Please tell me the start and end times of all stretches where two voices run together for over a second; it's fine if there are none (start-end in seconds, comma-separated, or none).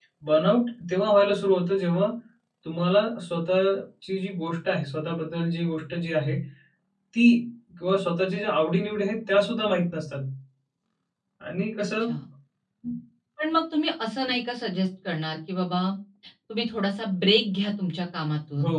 none